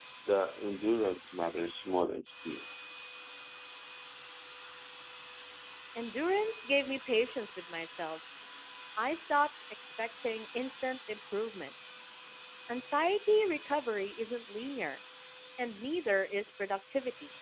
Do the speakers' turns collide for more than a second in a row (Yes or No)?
No